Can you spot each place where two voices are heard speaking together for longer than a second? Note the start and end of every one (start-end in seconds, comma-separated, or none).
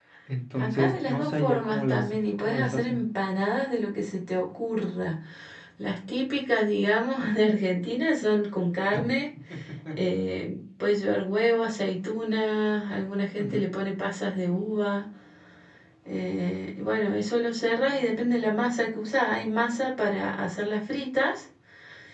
0.6-3.0